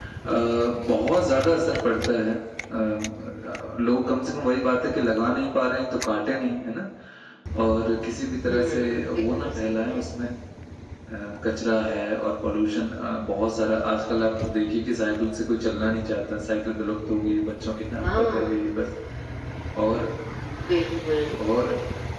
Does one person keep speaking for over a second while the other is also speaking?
Yes, from 8.4 s

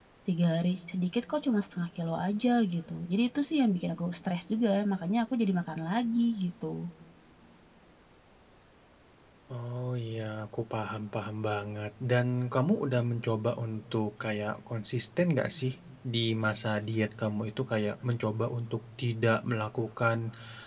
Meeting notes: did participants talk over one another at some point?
No

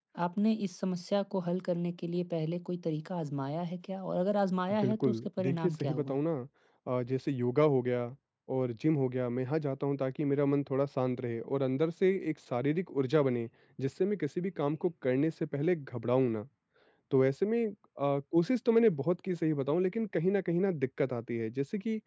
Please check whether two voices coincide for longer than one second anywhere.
Yes, from 4.7 s

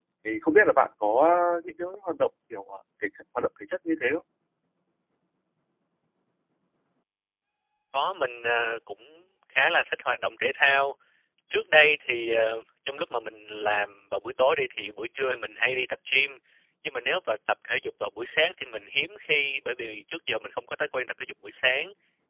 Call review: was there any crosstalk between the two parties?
No

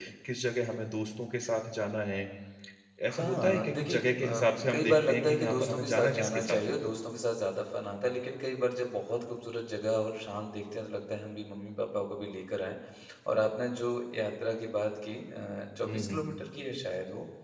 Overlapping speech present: Yes, from 3.2 s

